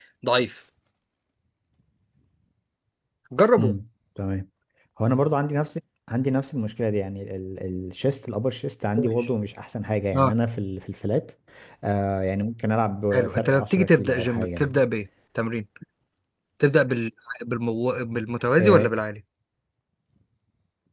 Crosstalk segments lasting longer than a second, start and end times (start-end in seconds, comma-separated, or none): 13.1-14.8